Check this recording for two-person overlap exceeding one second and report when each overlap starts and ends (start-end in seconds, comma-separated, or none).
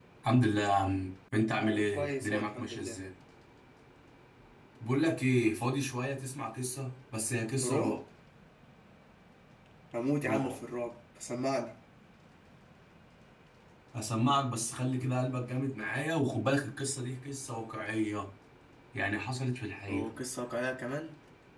1.4-3.0